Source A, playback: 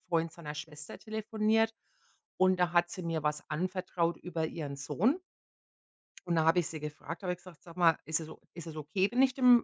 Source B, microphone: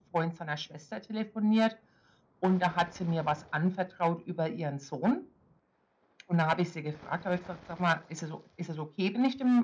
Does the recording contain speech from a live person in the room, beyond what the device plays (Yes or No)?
No